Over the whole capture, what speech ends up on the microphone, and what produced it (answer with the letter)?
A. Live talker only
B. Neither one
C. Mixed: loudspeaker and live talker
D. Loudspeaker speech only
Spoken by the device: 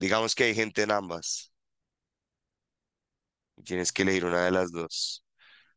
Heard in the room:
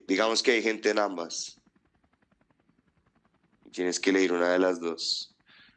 D